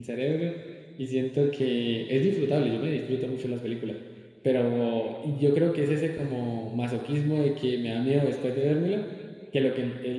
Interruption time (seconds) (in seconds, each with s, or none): none